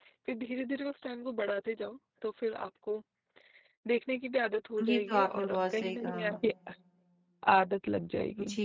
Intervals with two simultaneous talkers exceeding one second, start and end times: 4.9-6.2

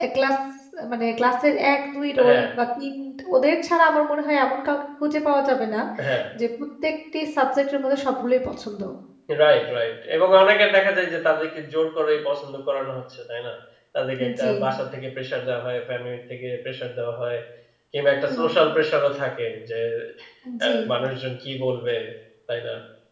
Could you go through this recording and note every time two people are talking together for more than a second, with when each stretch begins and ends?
none

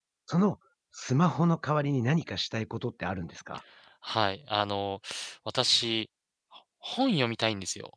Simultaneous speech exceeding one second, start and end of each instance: none

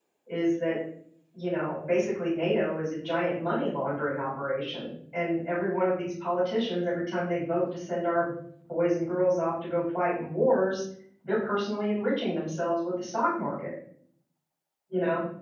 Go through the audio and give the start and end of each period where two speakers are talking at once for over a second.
none

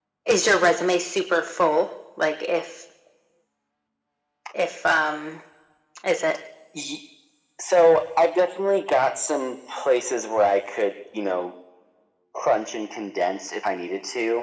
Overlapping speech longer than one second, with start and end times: none

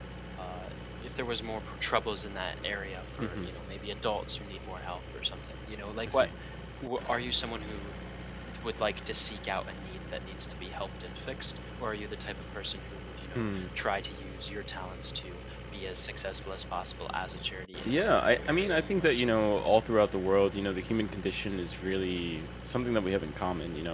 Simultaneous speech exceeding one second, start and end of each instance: 17.8-19.1

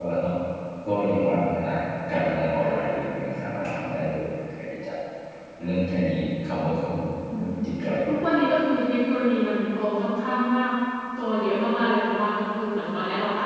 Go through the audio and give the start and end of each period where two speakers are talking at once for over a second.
none

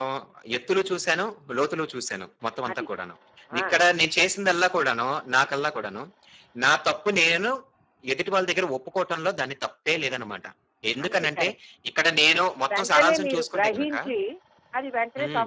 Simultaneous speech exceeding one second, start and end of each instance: 12.7-13.9

